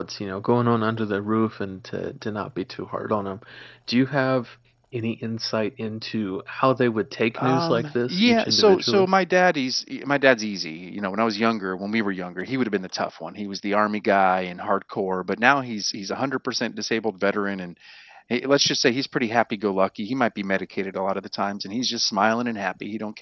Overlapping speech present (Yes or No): Yes